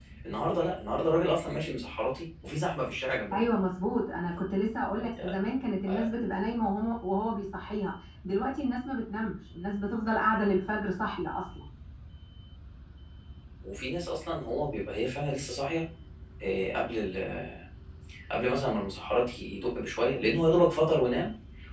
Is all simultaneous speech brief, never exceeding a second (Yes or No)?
Yes